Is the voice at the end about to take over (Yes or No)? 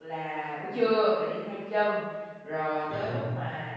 No